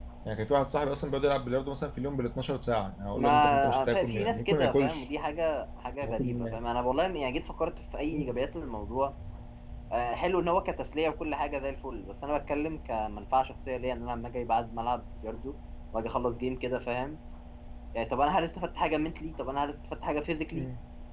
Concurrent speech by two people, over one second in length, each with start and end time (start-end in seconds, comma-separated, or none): 3.1-5.0